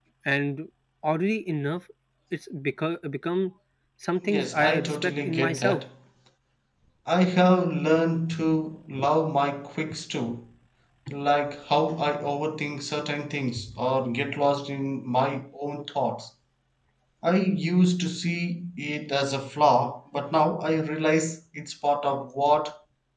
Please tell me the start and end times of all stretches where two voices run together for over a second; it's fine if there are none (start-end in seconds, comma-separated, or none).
4.2-5.8